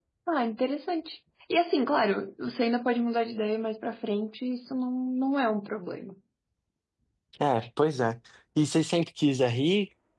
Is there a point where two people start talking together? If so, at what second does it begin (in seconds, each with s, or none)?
none